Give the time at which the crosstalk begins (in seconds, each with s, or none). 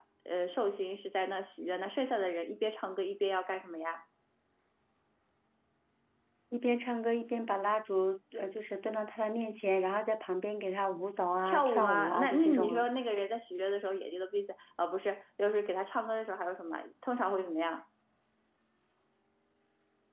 11.4 s